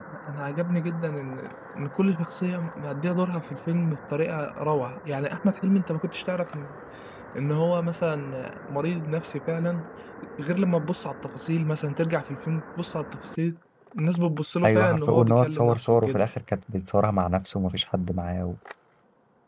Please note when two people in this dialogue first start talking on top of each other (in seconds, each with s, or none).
14.6 s